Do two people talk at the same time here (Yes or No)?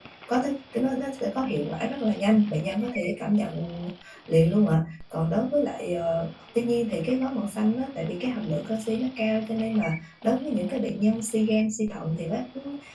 No